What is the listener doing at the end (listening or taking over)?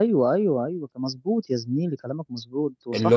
taking over